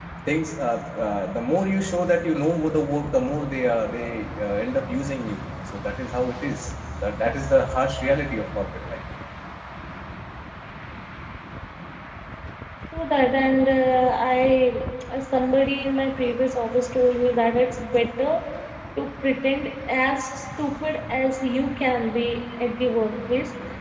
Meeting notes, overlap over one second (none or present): none